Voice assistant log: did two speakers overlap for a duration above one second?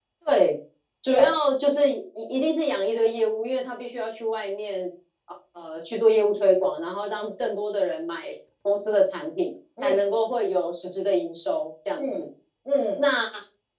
No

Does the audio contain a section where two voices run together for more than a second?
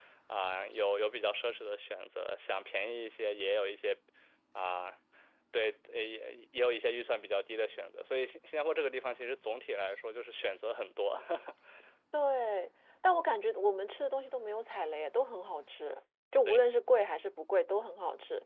No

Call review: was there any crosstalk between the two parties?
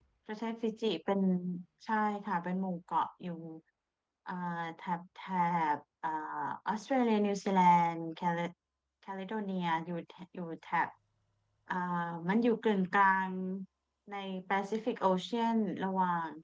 No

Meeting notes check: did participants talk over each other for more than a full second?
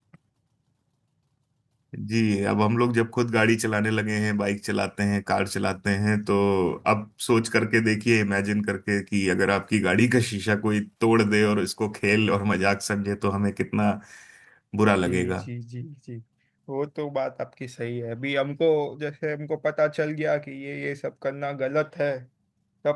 No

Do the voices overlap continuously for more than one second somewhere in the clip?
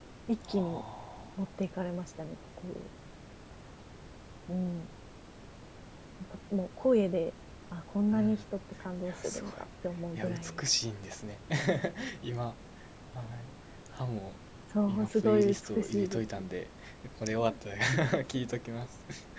Yes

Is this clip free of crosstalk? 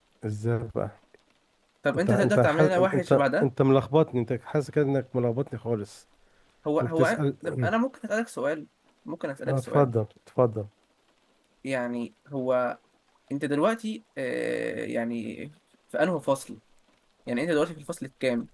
No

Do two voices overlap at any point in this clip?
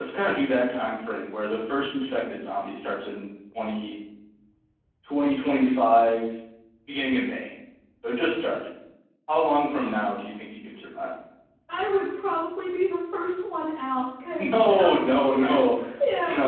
Yes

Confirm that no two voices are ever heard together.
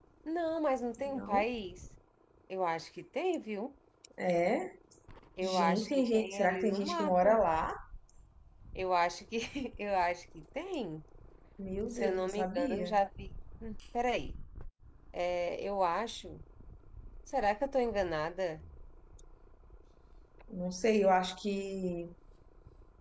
No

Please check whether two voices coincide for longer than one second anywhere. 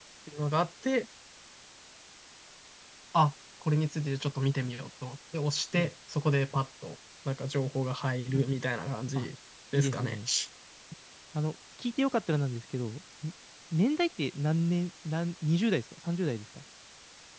No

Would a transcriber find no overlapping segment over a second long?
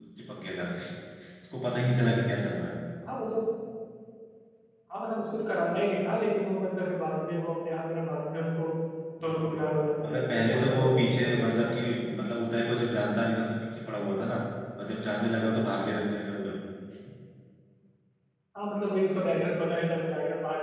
No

